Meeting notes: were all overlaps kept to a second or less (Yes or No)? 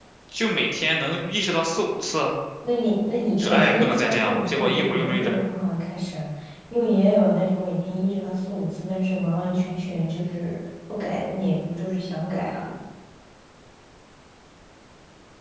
No